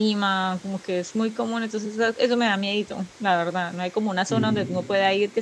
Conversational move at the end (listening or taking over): listening